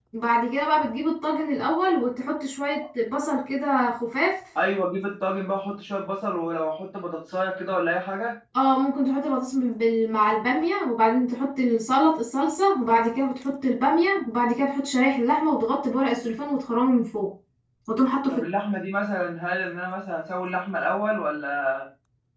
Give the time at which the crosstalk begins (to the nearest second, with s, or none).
none